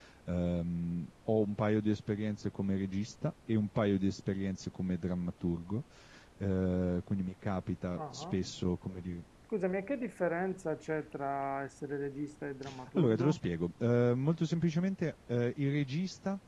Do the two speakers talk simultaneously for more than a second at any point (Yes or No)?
No